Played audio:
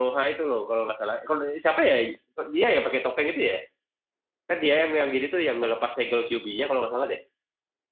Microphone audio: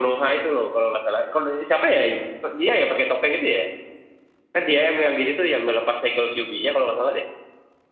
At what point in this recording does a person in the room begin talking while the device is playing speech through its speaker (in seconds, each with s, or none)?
none